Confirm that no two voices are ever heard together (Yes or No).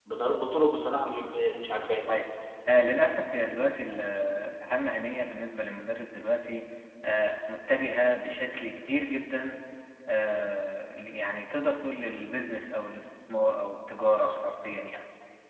Yes